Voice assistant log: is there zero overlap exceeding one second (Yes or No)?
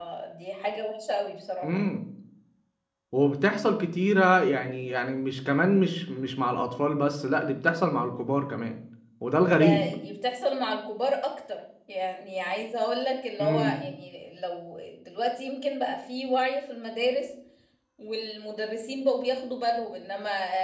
Yes